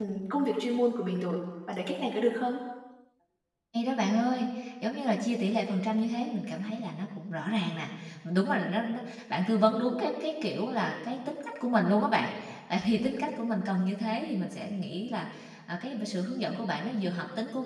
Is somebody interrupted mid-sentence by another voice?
No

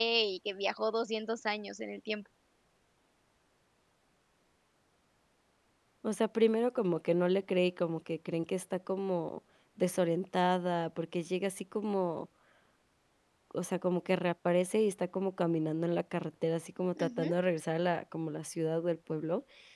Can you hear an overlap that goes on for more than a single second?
No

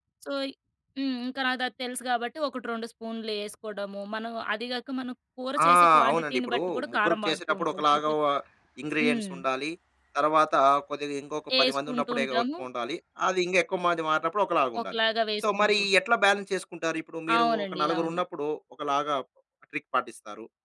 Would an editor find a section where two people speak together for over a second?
Yes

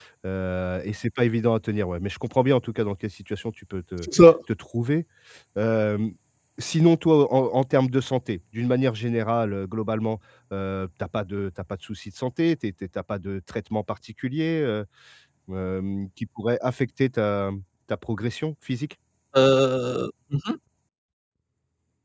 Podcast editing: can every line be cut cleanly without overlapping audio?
Yes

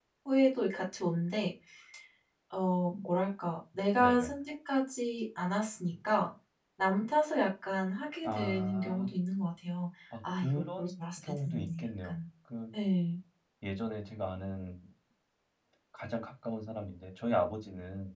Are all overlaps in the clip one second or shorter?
No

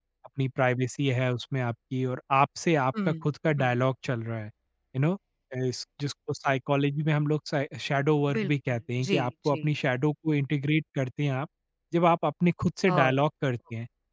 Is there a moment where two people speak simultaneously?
Yes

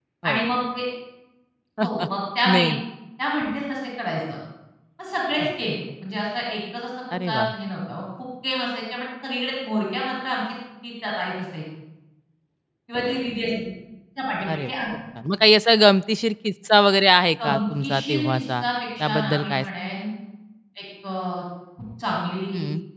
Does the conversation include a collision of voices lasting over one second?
Yes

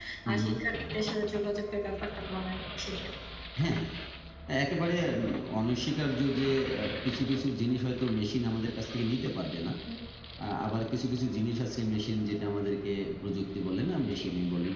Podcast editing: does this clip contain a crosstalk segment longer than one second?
No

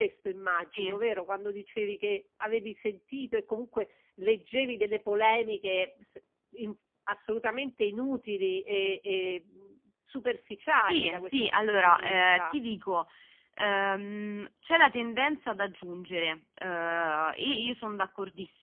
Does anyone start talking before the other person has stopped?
Yes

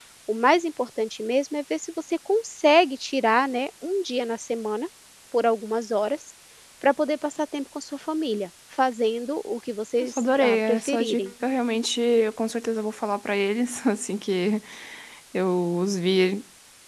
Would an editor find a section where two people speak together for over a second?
Yes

